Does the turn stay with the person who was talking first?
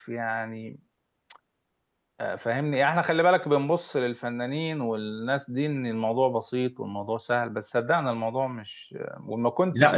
No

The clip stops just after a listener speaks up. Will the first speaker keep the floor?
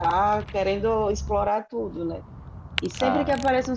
Yes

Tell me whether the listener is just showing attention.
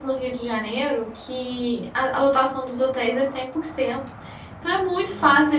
Yes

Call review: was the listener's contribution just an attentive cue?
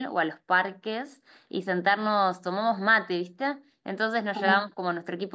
Yes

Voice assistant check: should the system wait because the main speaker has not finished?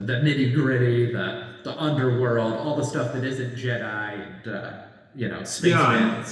No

